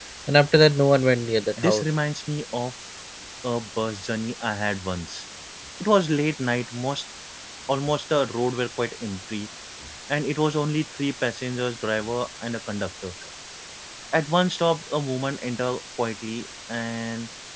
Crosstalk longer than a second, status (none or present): none